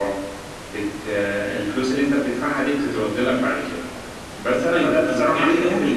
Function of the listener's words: taking over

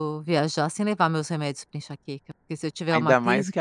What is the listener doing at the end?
taking over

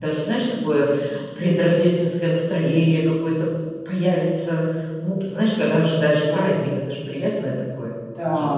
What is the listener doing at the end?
taking over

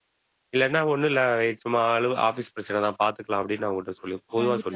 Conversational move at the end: taking over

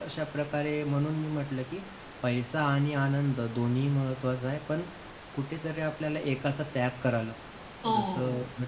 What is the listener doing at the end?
listening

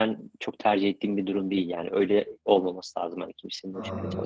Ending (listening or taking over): taking over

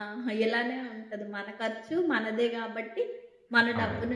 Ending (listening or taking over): listening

